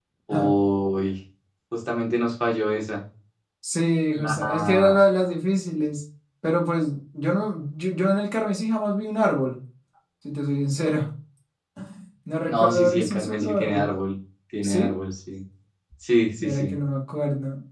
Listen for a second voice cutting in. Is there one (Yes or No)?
Yes